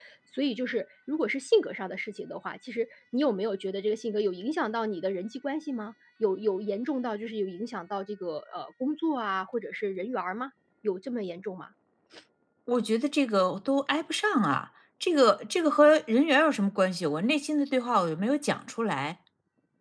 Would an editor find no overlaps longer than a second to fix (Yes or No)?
Yes